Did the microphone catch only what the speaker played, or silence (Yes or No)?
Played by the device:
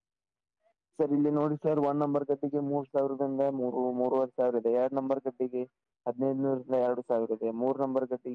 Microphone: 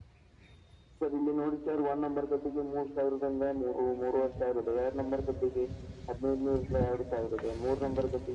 Yes